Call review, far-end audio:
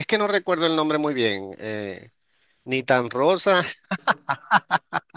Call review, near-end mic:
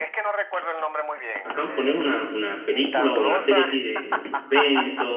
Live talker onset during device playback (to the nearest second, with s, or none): 1 s